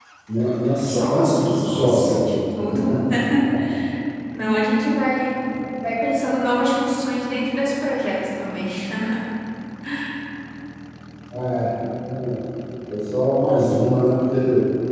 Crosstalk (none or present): present